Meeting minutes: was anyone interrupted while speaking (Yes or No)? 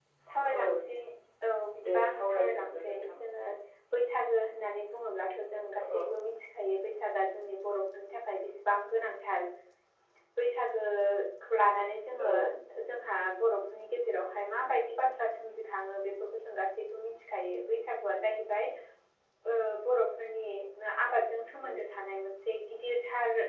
Yes